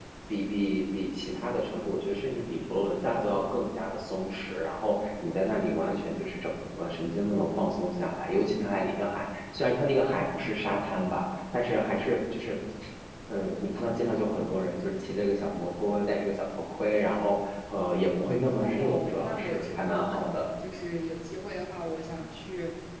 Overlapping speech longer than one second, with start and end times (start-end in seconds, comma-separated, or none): 18.5-20.5